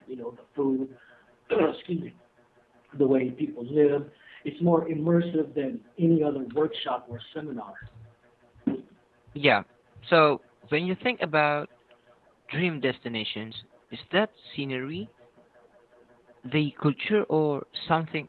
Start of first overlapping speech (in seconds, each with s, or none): none